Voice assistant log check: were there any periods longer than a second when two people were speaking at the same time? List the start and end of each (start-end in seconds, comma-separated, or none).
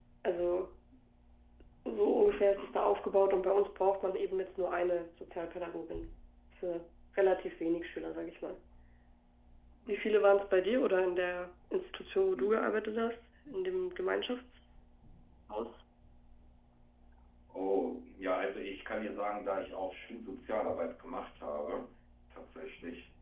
none